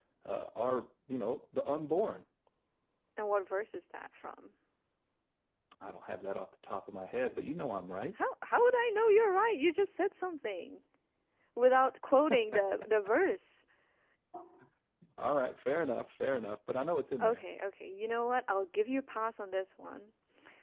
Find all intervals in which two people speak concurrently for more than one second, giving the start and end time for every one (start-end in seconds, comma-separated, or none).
none